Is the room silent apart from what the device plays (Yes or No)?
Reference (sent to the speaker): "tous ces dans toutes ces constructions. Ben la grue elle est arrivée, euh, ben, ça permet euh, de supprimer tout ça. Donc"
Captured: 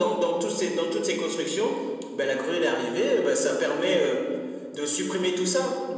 Yes